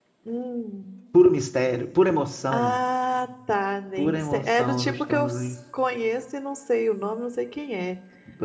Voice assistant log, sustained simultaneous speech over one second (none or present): present